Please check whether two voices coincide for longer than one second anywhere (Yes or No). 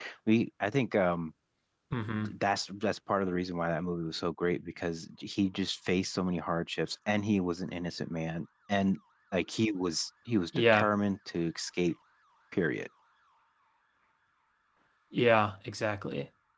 No